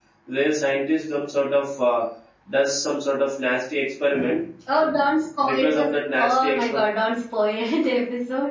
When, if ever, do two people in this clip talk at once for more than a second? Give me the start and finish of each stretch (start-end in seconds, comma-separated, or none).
5.4-6.8